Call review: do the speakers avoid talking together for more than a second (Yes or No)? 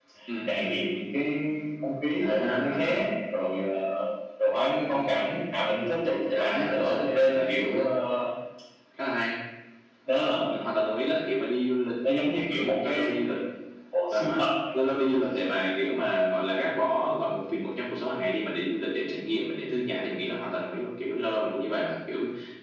No